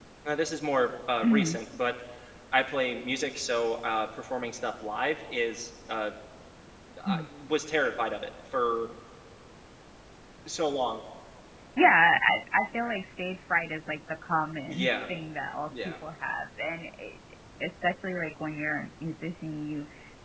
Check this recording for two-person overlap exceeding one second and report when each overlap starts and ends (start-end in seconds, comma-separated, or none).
none